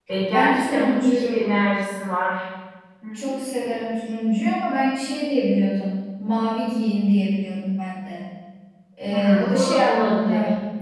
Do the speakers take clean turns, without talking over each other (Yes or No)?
No